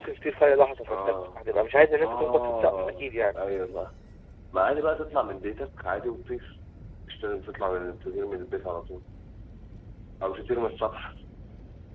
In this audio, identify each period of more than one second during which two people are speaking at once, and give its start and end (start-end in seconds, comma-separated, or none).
2.0-3.4